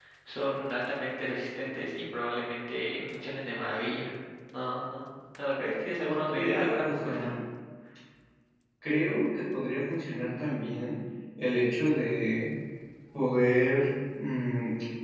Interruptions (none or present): present